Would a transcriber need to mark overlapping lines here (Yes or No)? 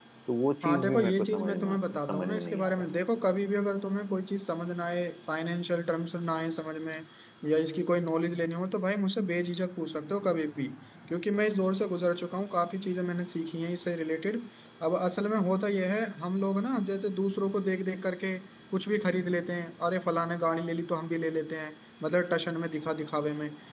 Yes